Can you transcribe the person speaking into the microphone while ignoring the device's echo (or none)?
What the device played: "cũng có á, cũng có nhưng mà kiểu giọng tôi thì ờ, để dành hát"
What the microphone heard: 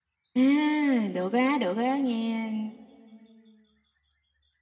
À, được á, được á, nghe